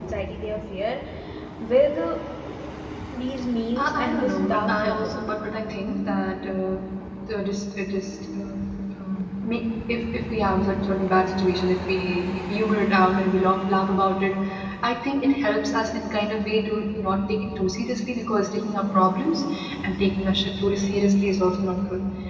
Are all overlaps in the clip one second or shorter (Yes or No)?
No